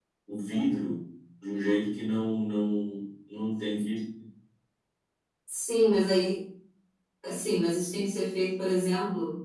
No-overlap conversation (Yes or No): Yes